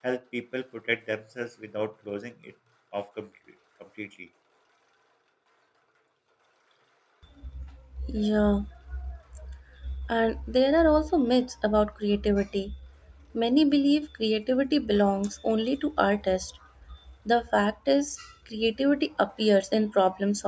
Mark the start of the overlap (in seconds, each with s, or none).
none